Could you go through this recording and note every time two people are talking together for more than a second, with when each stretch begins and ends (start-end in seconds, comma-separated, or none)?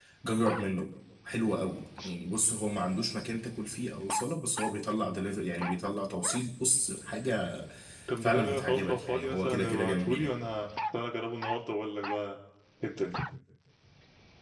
8.2-10.3